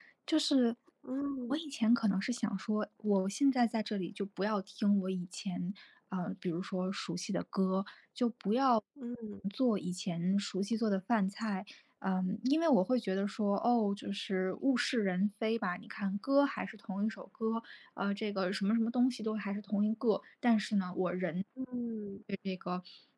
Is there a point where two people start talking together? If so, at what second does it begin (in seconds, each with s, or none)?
none